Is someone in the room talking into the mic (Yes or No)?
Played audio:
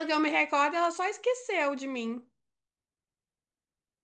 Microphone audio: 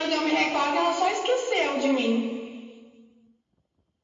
No